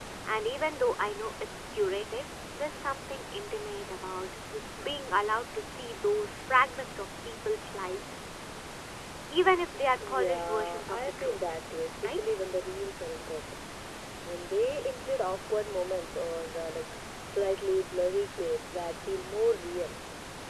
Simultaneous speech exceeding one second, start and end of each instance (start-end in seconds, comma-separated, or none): 10.1-11.4